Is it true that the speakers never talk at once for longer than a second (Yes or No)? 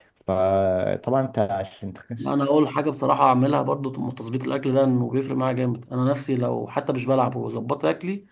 Yes